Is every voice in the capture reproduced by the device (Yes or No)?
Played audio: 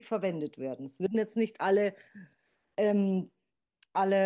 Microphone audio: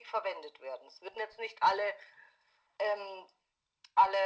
Yes